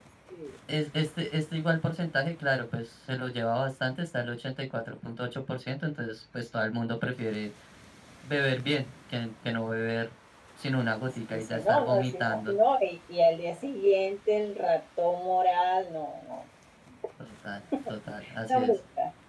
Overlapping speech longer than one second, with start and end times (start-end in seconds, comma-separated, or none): 11.3-12.6